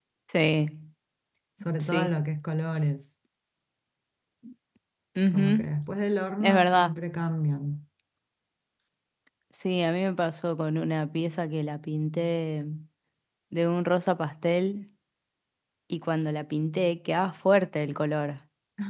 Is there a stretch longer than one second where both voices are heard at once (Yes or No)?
No